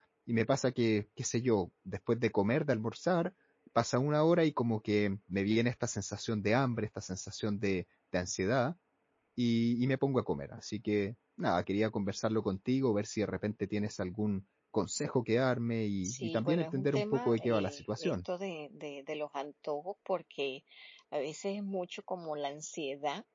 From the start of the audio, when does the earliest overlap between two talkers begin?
16.0 s

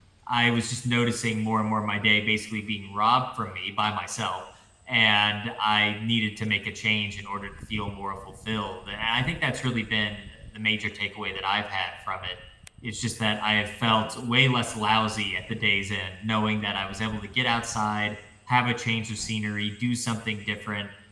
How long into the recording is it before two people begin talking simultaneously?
none

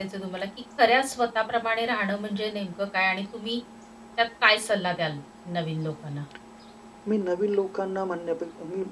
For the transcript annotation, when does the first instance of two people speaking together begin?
none

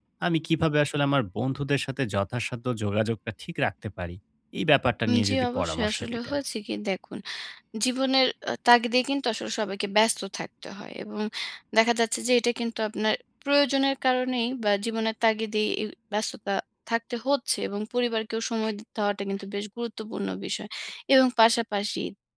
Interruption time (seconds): 5.1 s

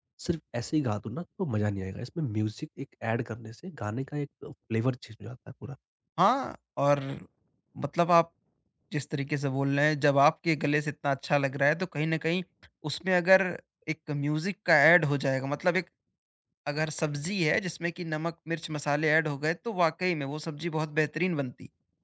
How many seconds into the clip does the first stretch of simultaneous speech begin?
none

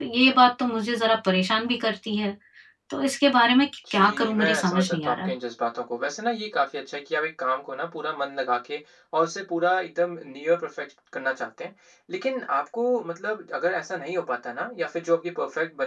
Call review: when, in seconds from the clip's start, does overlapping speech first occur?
3.9 s

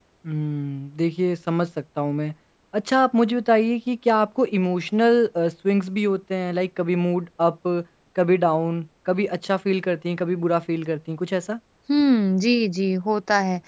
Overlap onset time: none

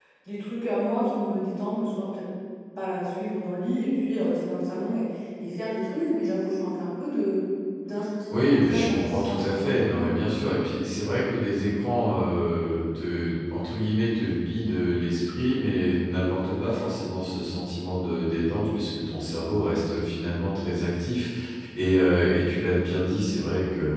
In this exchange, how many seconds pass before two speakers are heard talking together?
8.3 s

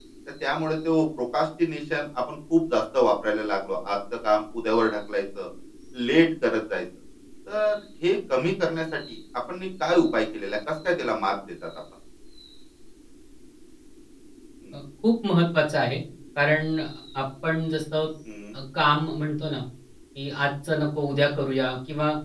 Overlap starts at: none

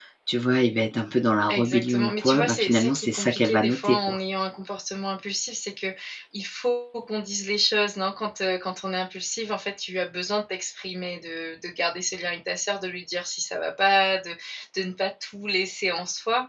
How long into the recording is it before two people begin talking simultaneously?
1.5 s

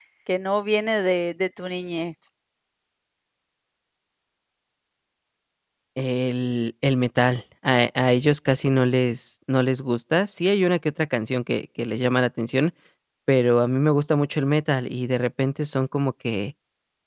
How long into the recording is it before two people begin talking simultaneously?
none

